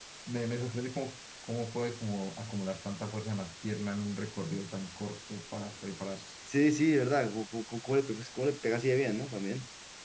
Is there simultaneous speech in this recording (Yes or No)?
No